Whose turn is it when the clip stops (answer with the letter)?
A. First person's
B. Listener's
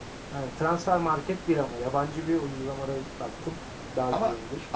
B